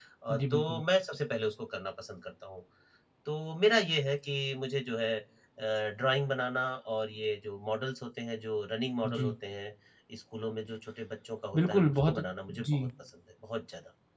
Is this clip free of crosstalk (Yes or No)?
No